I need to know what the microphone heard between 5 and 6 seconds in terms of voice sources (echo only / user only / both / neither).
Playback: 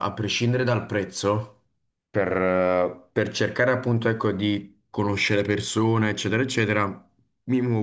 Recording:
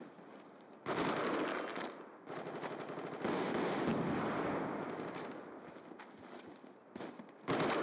neither